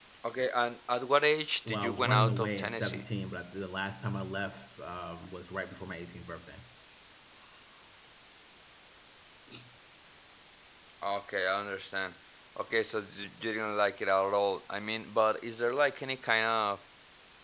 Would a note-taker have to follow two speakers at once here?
Yes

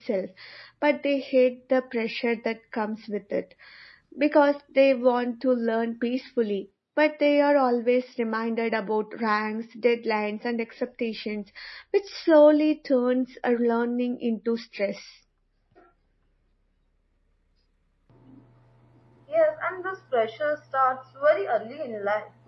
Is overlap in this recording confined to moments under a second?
Yes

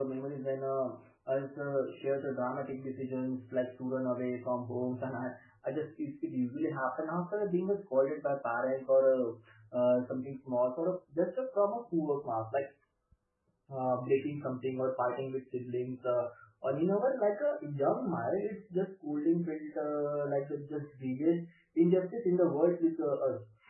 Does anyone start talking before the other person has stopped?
No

